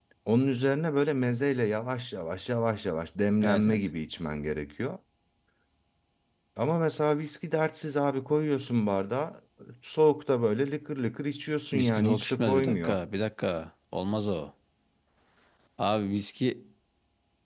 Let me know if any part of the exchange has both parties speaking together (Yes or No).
Yes